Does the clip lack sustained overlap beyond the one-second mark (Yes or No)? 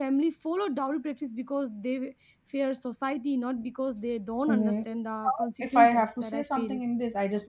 No